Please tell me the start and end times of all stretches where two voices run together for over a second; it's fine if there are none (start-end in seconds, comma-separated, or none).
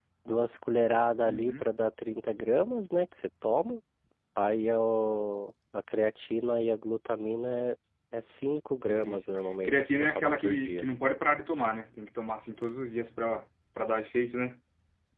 8.6-10.8